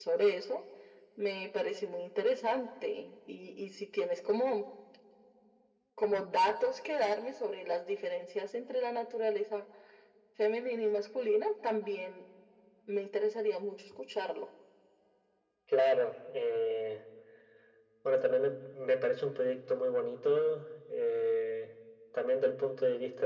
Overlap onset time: none

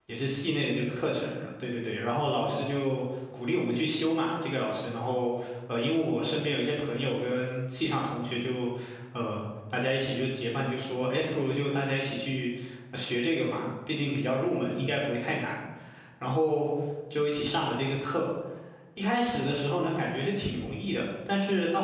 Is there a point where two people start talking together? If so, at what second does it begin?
none

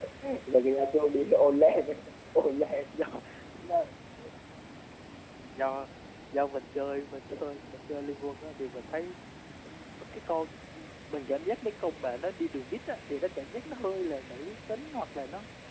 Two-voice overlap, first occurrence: none

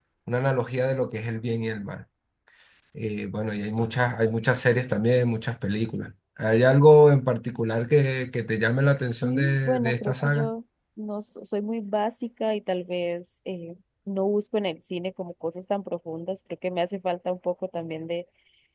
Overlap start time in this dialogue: 9 s

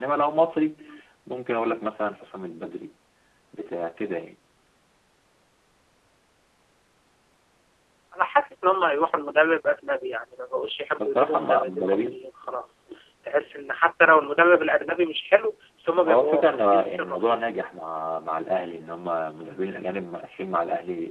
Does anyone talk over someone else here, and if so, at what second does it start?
11 s

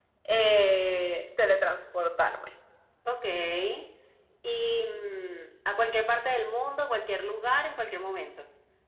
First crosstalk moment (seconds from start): none

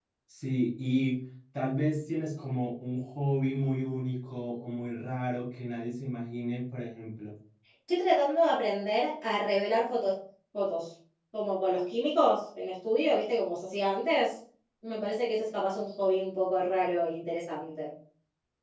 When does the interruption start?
none

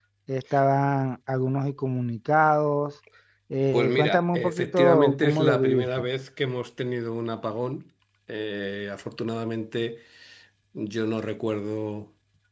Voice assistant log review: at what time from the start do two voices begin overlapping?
4 s

